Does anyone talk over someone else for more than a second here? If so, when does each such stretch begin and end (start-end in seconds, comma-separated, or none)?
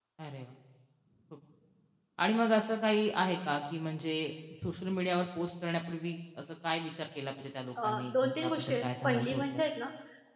7.8-9.6